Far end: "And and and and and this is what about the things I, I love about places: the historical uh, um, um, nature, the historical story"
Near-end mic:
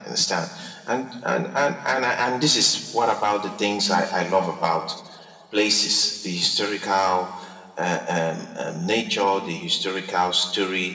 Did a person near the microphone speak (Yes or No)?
No